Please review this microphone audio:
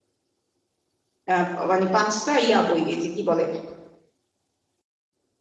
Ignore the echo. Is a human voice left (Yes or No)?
Yes